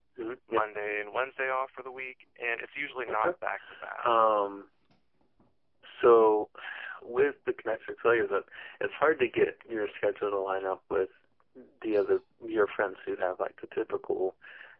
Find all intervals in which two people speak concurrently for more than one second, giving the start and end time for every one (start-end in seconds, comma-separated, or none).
none